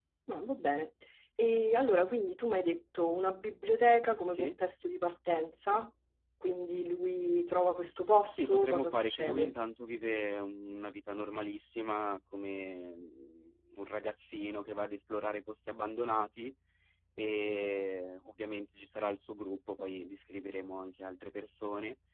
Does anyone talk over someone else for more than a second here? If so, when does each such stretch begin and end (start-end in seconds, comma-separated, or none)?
8.3-9.5